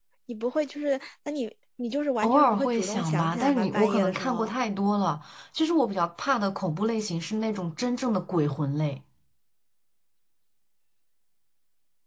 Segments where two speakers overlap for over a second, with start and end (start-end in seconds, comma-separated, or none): 2.2-4.5